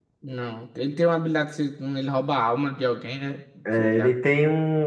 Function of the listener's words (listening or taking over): taking over